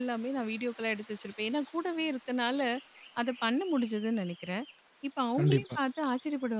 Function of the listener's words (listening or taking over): listening